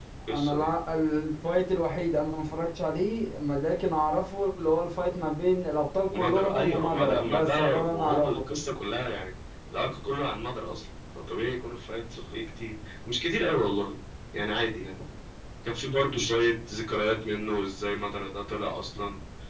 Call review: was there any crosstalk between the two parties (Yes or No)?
Yes